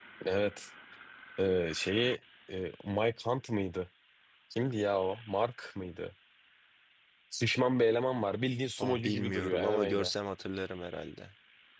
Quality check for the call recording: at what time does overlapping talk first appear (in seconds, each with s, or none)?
8.8 s